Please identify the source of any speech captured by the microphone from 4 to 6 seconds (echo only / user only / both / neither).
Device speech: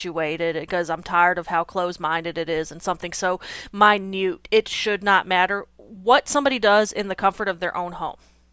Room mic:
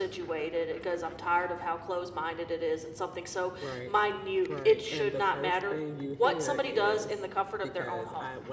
both